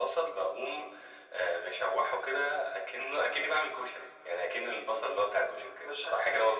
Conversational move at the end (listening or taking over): taking over